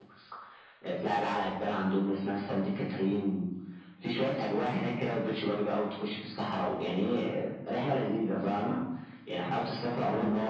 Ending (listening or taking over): listening